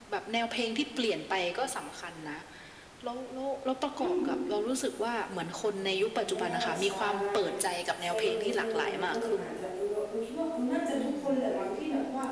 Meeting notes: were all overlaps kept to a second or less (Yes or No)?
No